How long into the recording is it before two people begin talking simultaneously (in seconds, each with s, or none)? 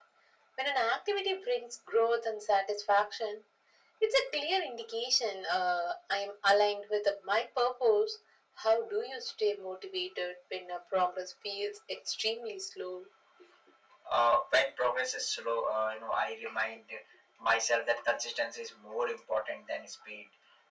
none